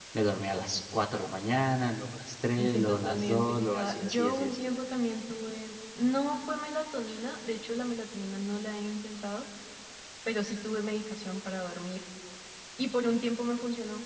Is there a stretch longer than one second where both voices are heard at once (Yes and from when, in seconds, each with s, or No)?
Yes, from 2.6 s